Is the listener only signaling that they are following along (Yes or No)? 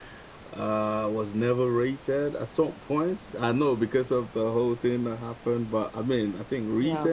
Yes